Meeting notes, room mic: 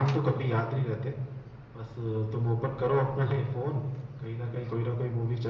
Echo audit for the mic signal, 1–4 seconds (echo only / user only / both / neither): echo only